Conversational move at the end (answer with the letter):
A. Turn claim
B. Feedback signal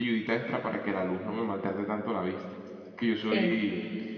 B